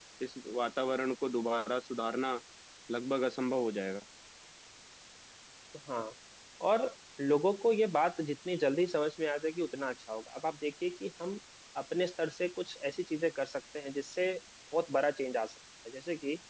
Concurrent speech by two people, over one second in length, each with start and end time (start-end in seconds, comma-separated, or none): none